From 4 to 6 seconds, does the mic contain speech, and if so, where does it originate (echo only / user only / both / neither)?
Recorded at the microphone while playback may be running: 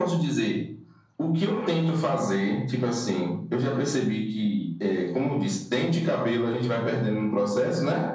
echo only